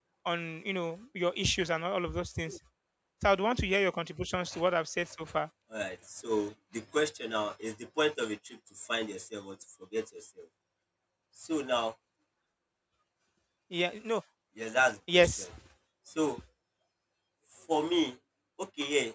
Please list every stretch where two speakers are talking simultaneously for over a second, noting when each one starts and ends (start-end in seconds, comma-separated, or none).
none